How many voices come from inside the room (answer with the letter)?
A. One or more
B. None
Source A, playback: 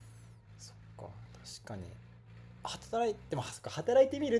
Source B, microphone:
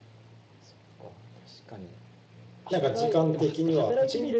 A